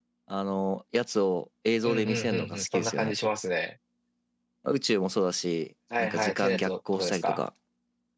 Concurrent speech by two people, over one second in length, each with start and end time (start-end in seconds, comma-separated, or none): 1.8-3.1, 6.0-7.4